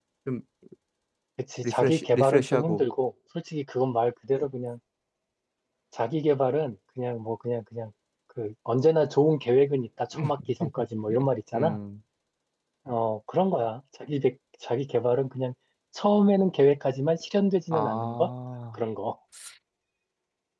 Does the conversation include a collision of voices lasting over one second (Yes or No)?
Yes